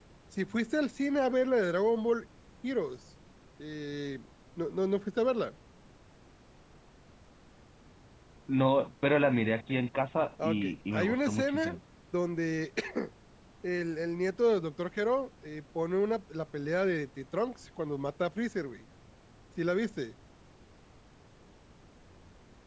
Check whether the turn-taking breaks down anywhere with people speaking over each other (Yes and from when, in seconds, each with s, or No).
Yes, from 10.4 s